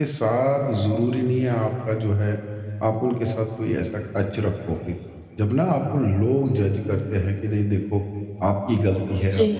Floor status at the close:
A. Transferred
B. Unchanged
B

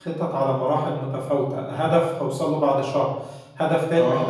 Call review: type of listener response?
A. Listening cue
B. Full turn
A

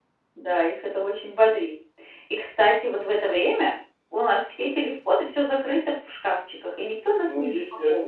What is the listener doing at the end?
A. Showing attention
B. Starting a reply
B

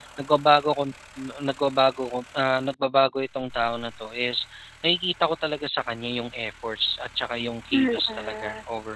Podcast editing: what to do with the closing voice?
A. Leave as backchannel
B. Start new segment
B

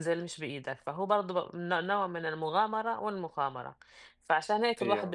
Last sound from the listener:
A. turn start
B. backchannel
B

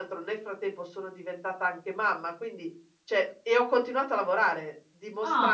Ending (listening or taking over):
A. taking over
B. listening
B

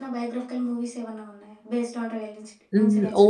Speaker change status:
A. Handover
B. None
A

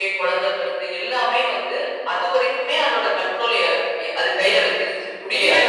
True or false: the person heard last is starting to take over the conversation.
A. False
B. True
B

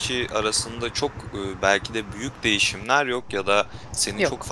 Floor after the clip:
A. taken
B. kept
B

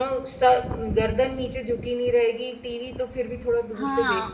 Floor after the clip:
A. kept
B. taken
B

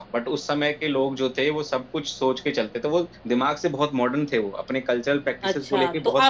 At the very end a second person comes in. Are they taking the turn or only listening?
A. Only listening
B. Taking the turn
B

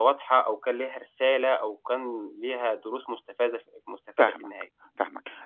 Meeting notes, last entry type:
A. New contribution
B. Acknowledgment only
A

